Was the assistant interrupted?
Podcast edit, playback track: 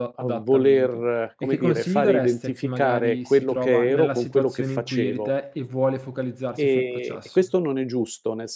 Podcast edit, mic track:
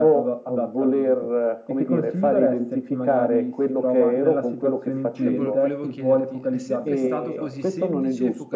Yes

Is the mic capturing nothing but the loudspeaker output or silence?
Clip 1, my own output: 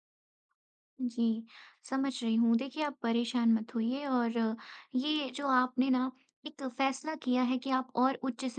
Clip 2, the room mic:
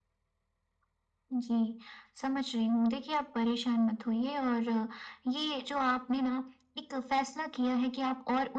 Yes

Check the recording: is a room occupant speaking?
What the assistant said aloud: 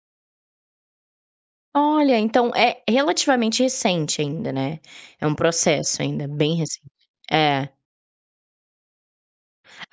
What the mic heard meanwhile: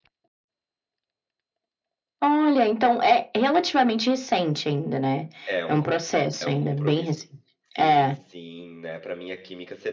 Yes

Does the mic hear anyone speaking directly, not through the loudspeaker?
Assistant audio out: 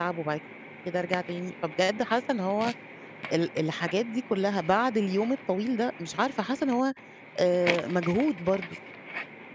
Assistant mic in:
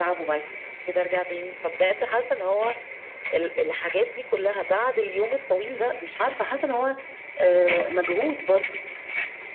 No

